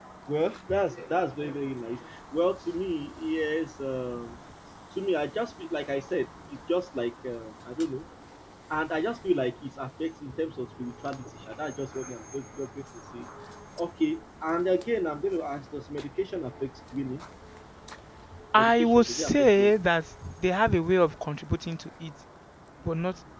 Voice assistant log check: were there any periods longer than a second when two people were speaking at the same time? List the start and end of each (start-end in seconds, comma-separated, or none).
18.6-19.8